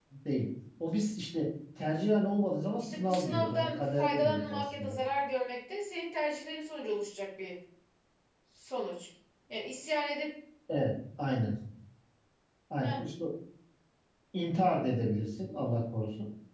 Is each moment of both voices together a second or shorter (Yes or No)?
No